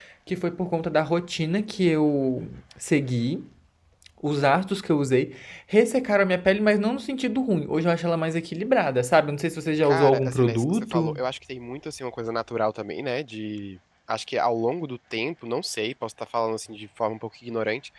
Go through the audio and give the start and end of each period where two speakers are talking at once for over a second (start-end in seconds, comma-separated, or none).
9.8-11.2